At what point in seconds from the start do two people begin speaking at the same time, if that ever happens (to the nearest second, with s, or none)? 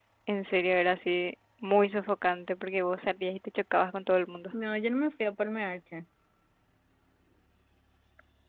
none